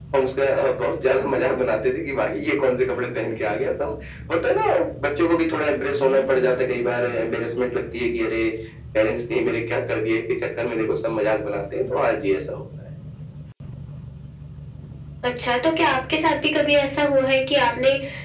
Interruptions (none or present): none